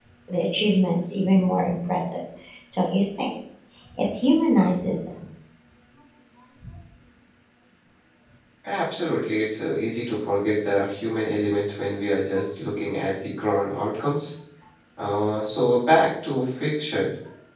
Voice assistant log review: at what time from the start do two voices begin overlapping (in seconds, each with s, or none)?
none